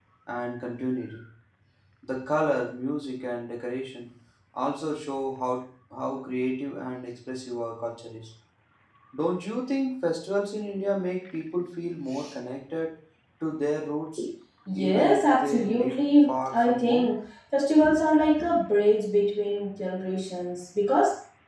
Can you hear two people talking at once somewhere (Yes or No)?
Yes